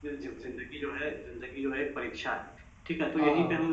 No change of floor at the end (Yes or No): Yes